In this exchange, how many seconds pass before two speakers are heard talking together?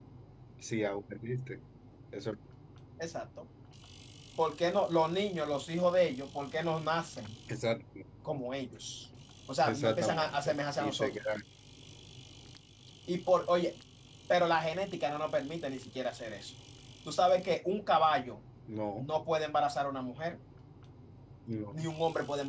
9.6 s

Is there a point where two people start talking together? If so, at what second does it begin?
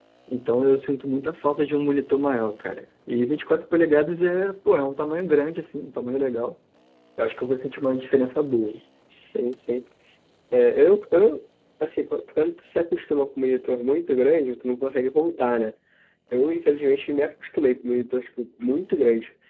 none

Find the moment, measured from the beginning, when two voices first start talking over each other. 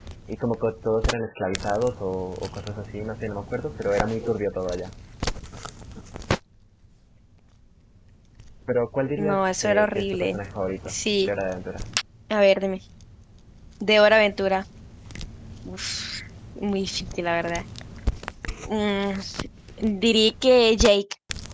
9.2 s

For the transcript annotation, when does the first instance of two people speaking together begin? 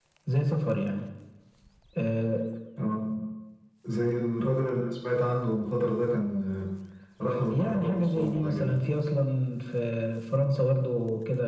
7.5 s

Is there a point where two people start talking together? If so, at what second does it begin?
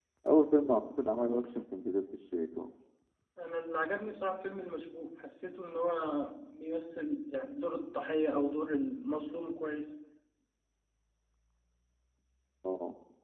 none

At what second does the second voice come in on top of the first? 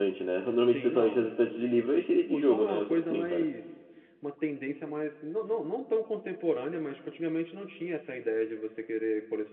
0.7 s

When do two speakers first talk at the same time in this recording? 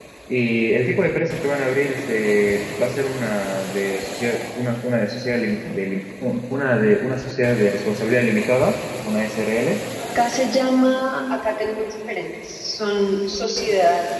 none

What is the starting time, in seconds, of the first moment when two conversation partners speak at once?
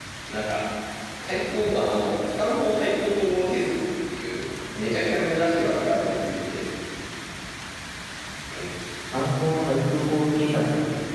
none

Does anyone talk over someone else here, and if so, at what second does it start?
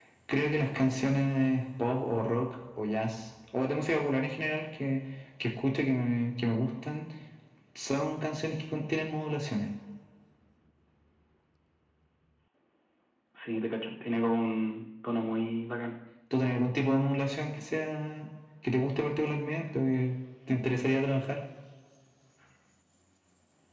none

